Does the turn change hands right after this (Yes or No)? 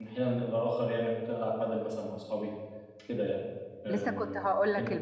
Yes